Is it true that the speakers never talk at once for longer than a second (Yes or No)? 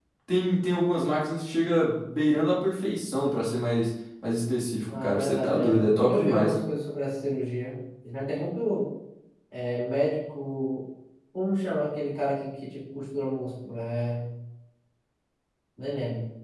No